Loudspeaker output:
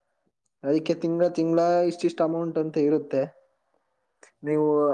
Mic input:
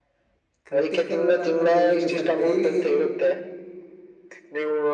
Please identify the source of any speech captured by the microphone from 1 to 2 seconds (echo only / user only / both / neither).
both